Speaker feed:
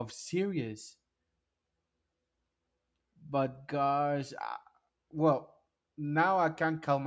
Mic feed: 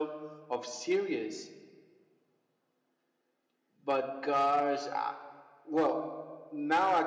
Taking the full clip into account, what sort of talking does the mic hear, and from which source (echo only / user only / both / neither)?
echo only